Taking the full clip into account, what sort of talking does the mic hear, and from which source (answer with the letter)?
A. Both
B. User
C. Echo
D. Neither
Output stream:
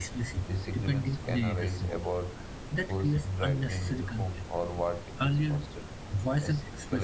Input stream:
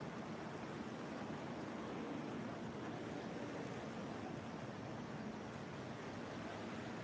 D